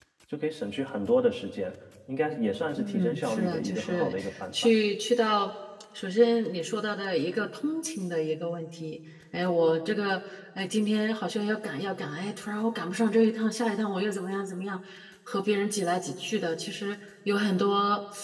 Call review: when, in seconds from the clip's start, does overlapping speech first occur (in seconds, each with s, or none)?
2.8 s